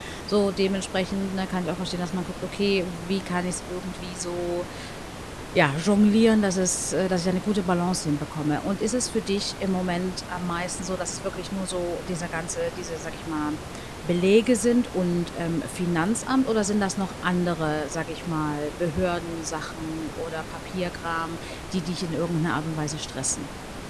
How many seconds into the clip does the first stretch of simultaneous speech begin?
none

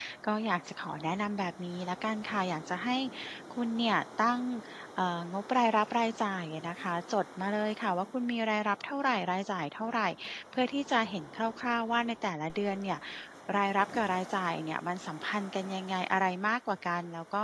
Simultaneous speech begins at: none

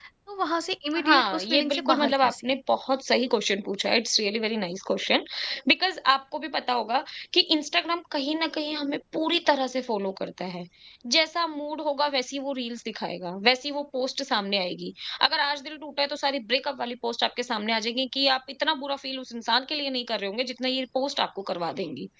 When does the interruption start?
1 s

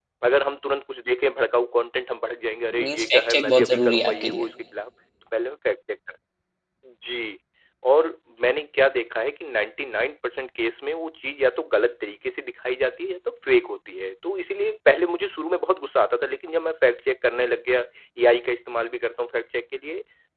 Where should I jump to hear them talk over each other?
3 s

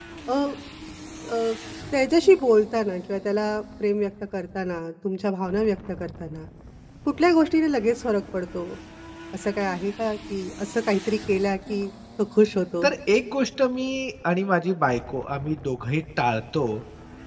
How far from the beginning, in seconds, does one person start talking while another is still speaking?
none

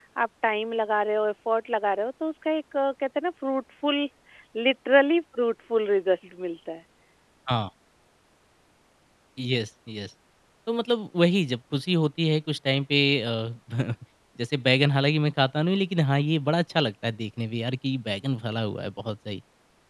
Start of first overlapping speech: none

